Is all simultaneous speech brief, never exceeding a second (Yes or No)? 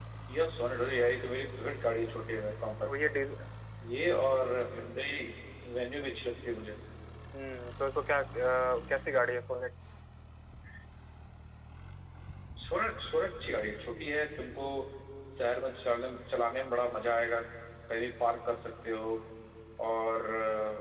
Yes